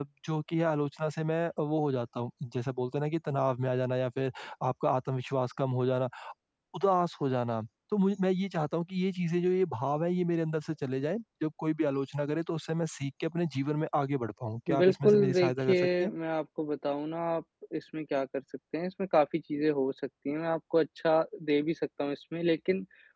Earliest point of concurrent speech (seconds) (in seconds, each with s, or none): 14.7 s